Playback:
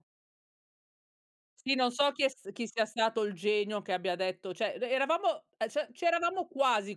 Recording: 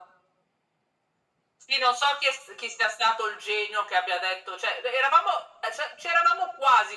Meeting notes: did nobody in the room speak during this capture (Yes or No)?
Yes